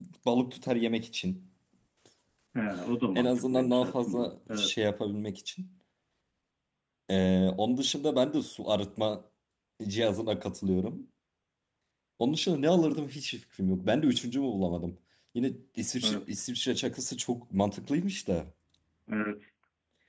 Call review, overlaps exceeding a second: present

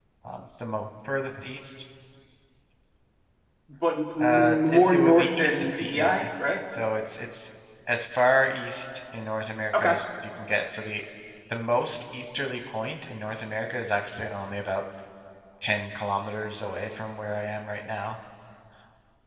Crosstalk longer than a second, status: present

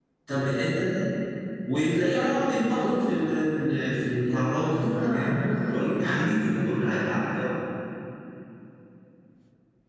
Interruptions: present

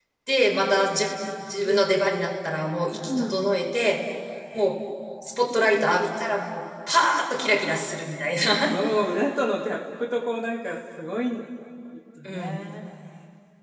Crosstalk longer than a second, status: none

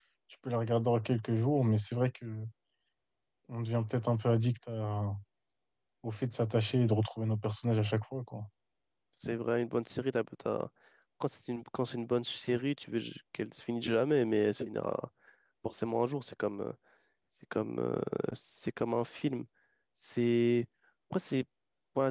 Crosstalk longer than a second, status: none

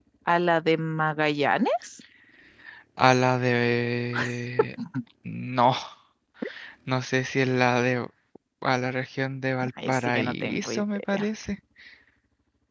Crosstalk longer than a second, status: present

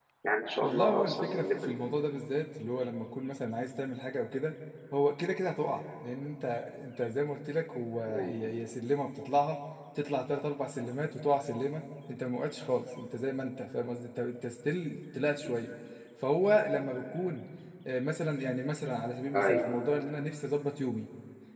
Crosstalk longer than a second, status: present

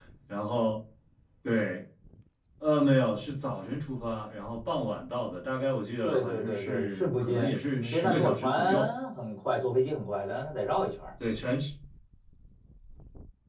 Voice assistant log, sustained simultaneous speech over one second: present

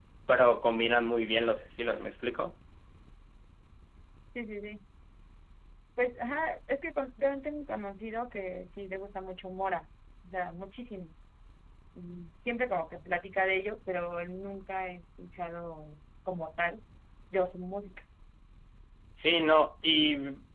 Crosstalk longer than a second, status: none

